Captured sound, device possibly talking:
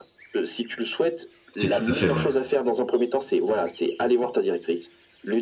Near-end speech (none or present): present